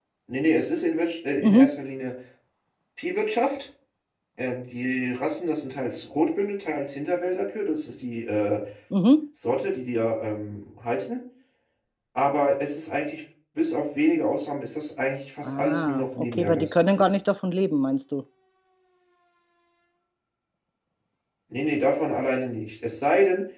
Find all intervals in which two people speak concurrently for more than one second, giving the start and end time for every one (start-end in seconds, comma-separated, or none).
15.4-17.1